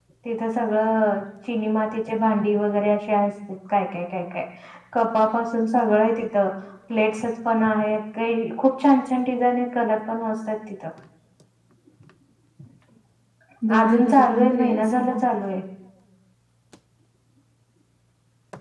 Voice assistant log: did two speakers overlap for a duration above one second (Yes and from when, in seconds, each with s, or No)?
Yes, from 13.8 s